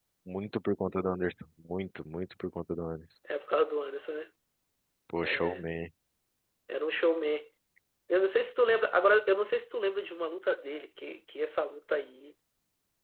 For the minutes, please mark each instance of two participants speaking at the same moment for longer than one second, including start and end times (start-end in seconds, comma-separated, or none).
none